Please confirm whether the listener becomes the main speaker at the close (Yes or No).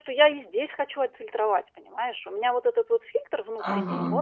No